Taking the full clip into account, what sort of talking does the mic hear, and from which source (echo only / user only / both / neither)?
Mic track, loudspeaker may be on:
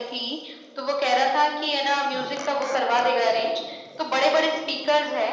echo only